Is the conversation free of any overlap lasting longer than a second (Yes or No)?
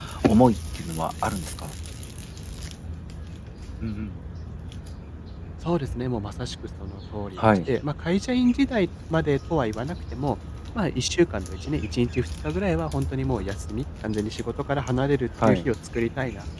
Yes